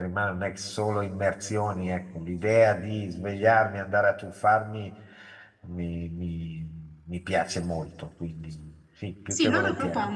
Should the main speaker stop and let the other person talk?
Yes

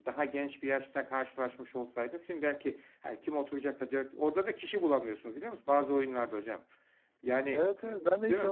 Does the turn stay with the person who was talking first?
No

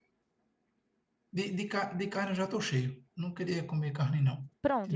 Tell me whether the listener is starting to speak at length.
Yes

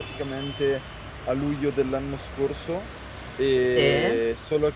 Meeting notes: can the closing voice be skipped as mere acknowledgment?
Yes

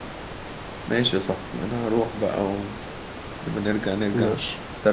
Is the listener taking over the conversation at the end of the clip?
No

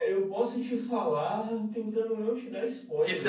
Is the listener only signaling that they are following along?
No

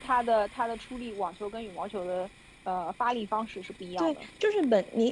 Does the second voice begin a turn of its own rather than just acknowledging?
Yes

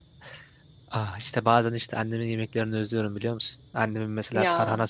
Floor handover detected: No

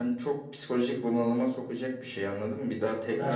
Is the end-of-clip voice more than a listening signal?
No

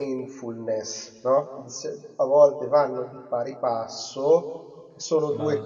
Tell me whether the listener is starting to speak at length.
No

